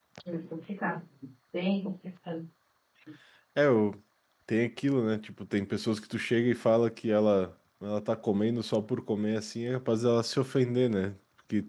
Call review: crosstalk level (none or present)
none